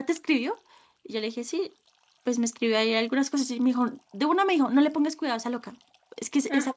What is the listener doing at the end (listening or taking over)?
listening